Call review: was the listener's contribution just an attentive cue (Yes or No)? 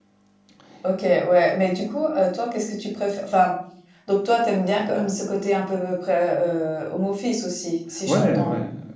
No